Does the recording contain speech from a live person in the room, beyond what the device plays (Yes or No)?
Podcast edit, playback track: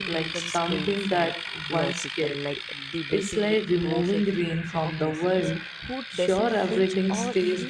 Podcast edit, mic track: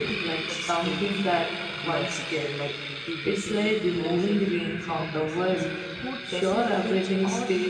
No